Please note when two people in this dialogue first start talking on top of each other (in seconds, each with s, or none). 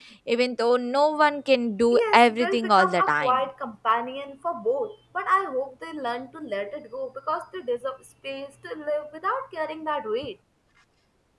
1.9 s